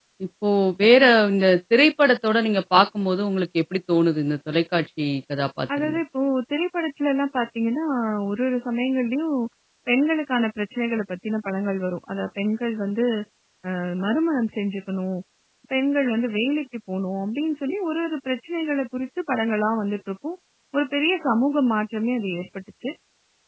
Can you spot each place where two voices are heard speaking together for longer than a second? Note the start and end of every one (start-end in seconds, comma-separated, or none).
none